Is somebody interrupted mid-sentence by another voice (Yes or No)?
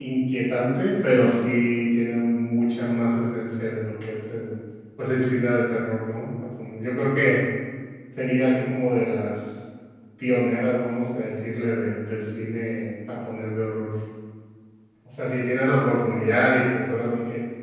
No